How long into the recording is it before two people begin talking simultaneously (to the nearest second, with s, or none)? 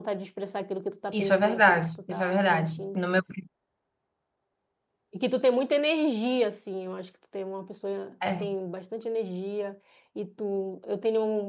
1 s